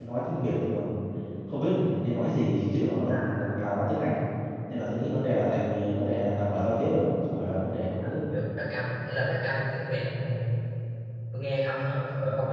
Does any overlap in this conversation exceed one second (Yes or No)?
No